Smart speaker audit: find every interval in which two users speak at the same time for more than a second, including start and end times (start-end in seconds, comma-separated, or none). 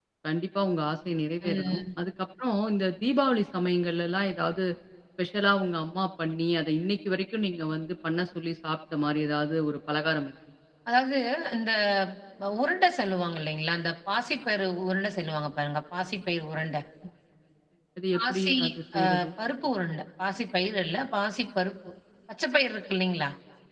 none